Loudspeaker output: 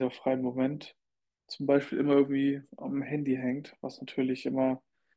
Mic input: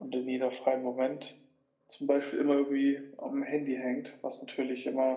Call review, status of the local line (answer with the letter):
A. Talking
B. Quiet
B